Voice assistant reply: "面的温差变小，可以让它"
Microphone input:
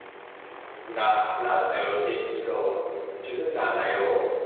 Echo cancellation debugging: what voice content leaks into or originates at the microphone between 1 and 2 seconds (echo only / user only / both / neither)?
user only